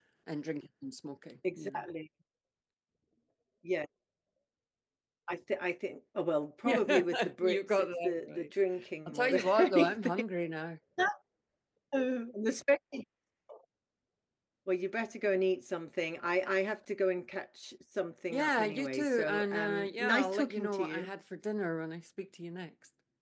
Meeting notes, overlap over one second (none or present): present